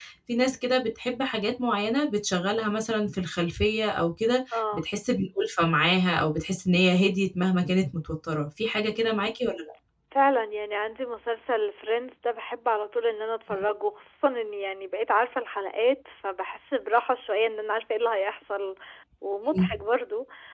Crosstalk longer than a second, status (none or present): none